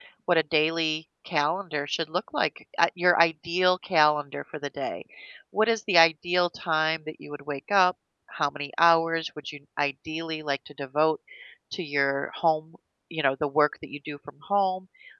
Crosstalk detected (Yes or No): No